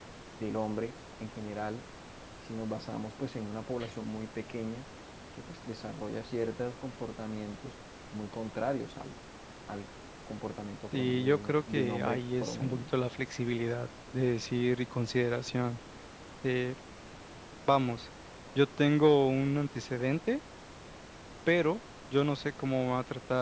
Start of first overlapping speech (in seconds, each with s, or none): 10.9 s